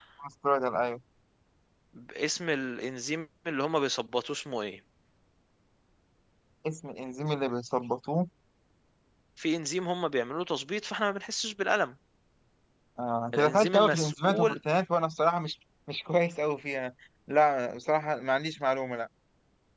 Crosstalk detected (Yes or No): Yes